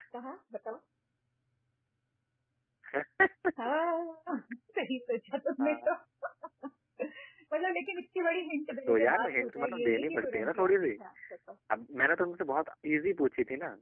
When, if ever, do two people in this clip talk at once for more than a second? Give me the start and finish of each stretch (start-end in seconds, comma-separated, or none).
8.9-10.7